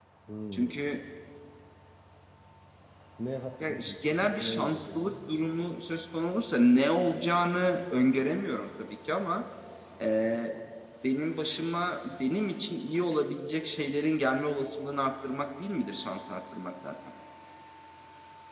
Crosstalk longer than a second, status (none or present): present